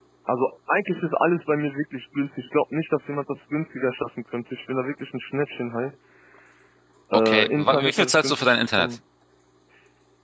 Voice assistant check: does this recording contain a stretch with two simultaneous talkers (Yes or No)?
Yes